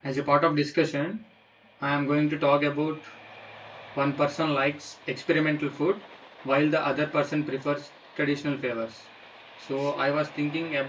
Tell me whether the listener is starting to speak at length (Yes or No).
No